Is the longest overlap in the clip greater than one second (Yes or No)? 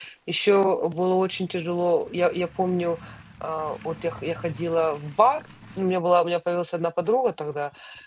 No